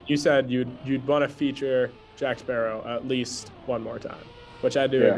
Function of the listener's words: listening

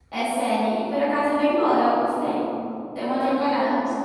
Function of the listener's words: taking over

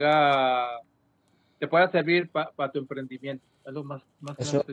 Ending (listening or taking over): taking over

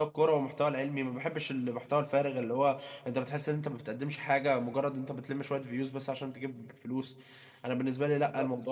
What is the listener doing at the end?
taking over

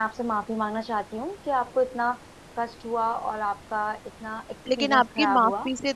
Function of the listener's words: taking over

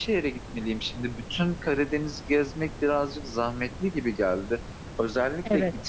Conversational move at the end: listening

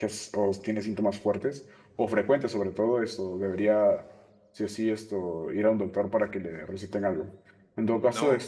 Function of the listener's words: listening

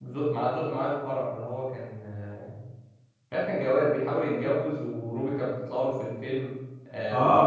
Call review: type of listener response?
taking over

